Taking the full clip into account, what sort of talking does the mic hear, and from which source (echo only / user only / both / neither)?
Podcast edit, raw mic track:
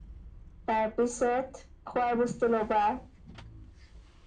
echo only